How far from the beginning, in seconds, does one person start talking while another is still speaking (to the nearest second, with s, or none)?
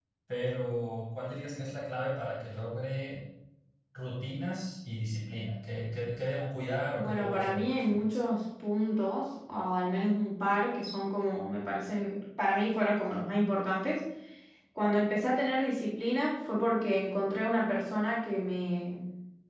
7 s